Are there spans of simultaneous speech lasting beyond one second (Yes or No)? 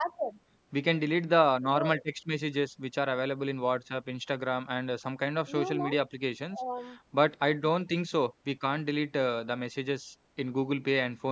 No